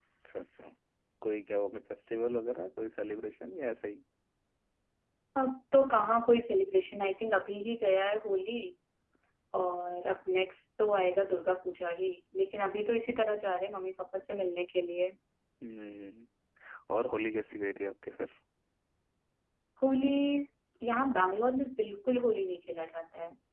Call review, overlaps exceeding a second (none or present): none